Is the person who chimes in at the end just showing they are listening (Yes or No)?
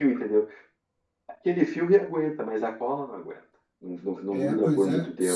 No